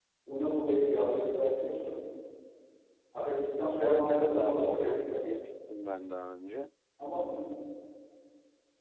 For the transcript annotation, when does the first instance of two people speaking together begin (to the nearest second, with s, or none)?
4 s